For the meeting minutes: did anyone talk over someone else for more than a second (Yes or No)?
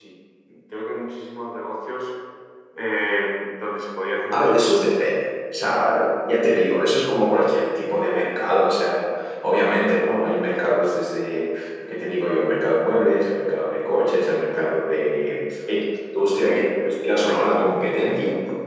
No